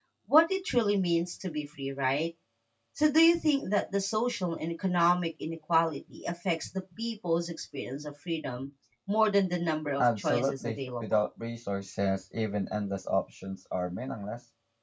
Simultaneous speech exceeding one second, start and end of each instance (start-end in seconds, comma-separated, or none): 10.0-11.2